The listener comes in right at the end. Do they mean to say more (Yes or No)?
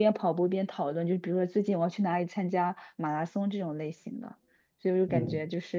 No